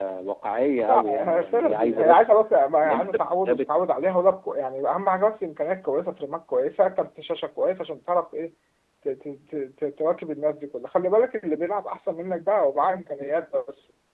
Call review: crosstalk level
present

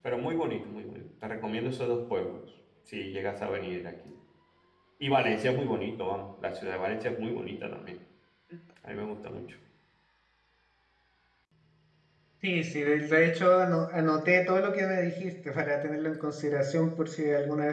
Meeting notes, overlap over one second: none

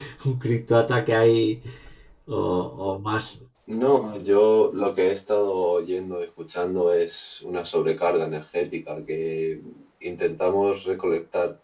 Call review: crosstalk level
none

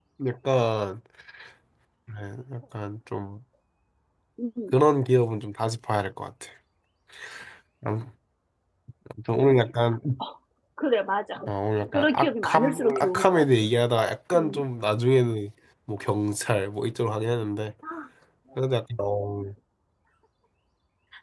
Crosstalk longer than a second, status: present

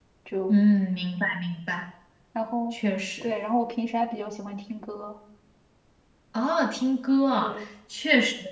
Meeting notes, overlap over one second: none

